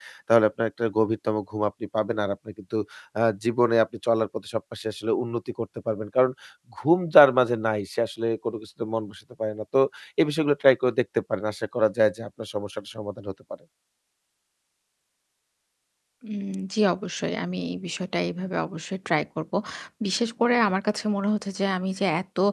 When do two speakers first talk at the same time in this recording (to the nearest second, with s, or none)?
none